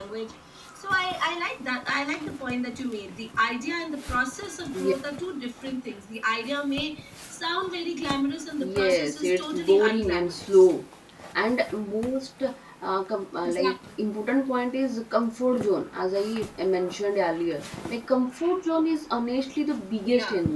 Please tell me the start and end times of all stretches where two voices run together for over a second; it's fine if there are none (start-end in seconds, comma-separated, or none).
8.6-10.7